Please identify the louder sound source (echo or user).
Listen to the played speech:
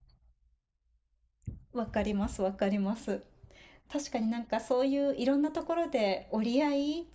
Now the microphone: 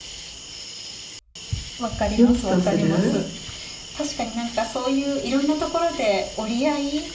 user